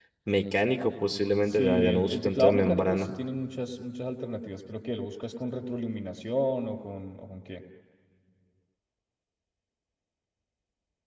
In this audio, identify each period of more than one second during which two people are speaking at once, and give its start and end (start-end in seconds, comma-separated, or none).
1.5-3.1